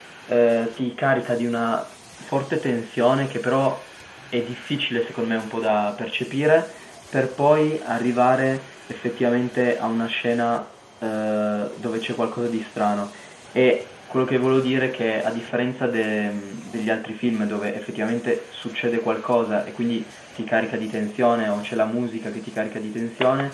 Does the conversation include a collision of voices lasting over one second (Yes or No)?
No